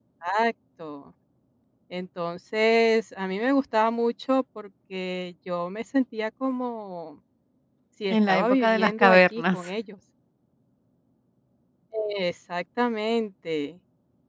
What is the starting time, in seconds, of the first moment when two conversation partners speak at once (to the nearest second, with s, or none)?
8 s